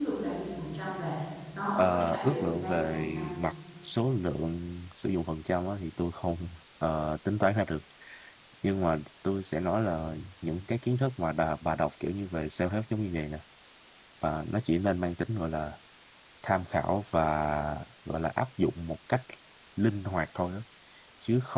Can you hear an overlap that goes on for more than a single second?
Yes, from 1.8 s

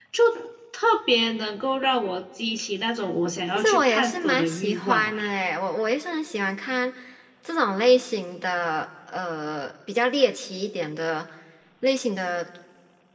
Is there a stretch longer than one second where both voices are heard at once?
Yes, from 3.6 s

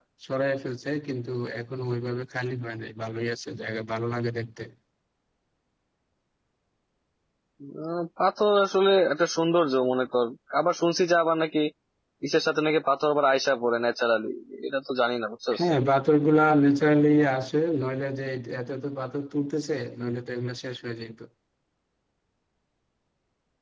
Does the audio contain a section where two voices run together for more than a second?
No

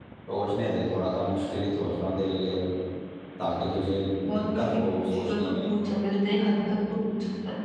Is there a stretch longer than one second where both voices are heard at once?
Yes, from 4.4 s

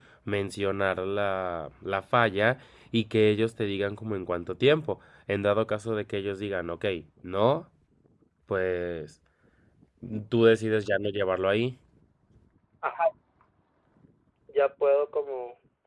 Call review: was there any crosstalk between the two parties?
No

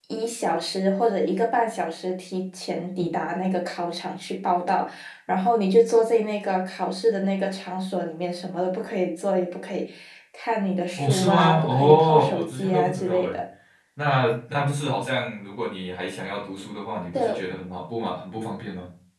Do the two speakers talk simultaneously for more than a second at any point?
Yes, from 11.0 s

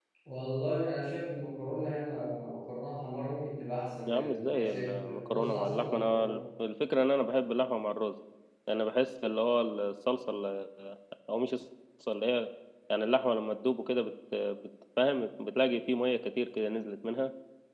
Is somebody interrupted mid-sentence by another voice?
Yes, from 4.1 s

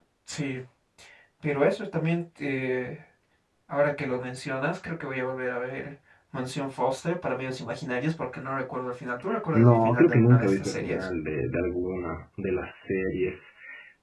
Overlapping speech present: Yes, from 9.5 s

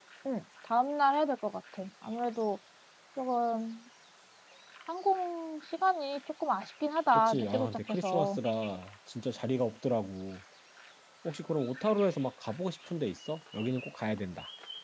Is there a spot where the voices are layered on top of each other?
Yes, from 7.1 s

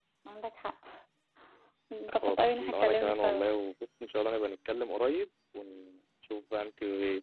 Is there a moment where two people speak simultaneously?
Yes, from 2.1 s

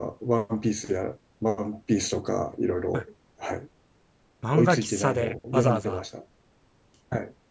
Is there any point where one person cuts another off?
Yes, from 4.5 s

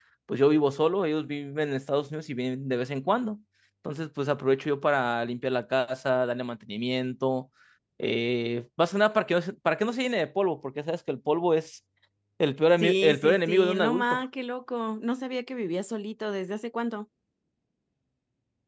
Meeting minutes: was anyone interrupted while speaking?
Yes, from 12.8 s

